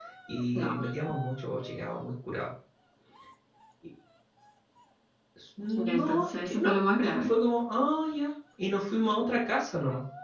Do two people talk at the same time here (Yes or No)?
Yes